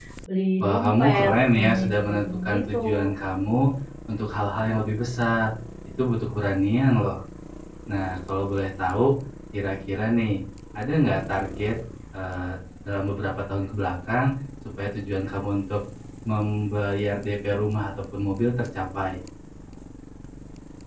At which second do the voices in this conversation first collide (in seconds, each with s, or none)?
0.6 s